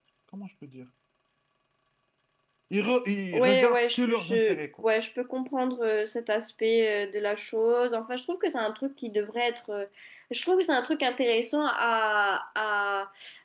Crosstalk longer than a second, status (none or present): present